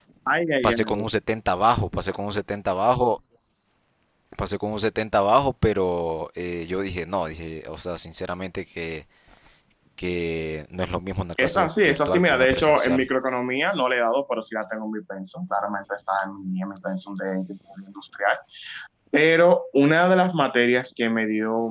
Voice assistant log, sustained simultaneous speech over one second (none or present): present